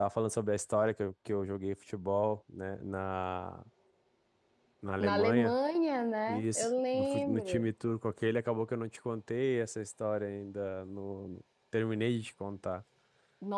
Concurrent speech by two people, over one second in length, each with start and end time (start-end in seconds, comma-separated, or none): 6.3-7.7